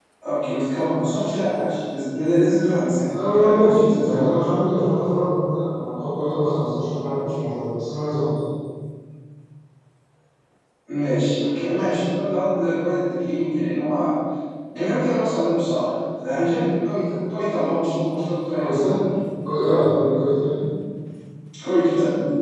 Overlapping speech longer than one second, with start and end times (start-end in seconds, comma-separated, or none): 3.1-4.4